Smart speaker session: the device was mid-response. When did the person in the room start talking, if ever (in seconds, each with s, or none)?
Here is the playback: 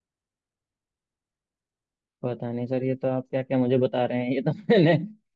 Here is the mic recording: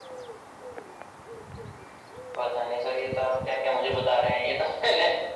none